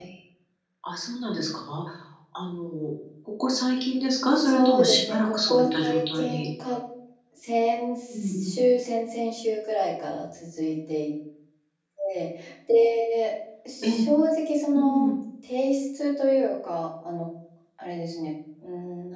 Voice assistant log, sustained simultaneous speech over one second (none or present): present